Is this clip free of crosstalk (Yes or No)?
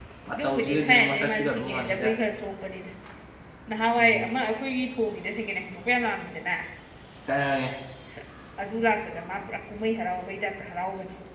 No